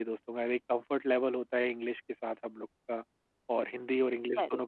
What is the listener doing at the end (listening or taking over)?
listening